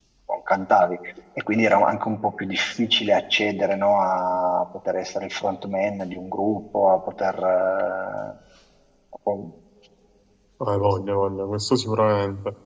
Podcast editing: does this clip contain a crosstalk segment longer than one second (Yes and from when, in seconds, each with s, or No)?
No